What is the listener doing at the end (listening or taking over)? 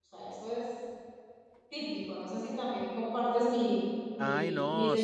taking over